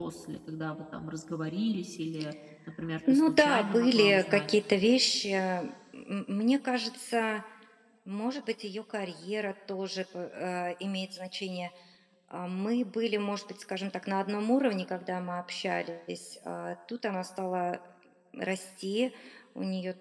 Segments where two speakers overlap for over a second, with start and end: 3.1-4.4

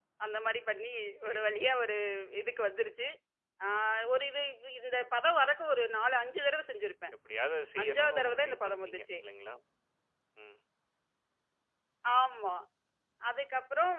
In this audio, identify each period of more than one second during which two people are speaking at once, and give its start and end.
7.8-9.1

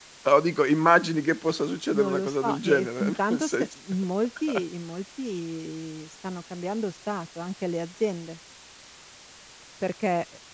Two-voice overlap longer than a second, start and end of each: 2.0-3.7

